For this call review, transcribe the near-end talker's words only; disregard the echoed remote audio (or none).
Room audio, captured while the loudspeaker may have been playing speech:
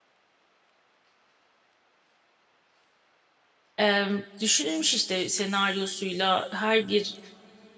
Ee, düşünülmüş işte senaryosuyla her bir